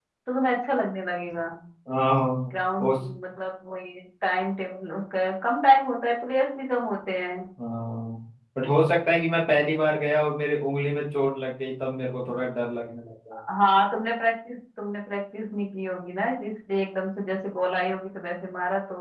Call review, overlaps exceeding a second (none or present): none